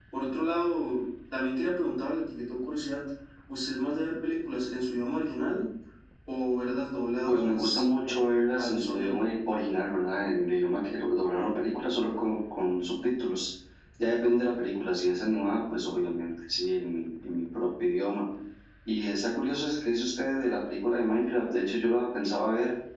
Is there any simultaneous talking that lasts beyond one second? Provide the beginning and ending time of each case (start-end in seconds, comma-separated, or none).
7.2-9.2